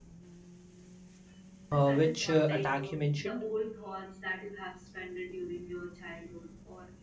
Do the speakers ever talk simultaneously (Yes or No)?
Yes